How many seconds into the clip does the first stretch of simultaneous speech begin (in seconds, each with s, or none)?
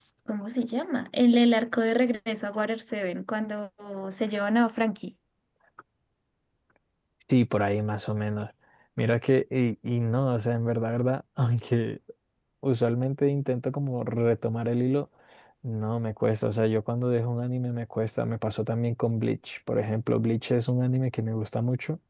none